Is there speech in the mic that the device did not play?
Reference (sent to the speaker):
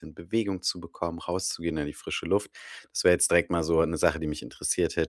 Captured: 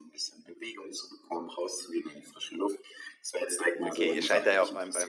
Yes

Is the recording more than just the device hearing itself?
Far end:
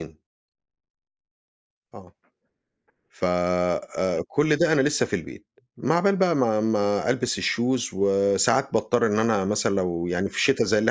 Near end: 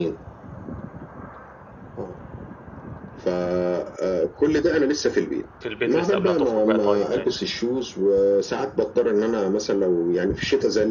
Yes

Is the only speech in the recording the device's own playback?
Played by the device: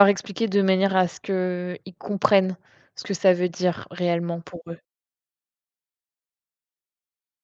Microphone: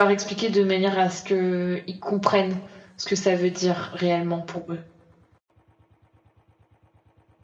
Yes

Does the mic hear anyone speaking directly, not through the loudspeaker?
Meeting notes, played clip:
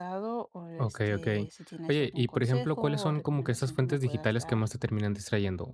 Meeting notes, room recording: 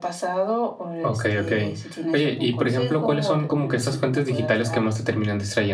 No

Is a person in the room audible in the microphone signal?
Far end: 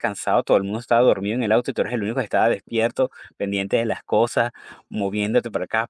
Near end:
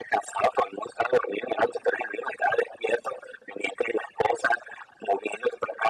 No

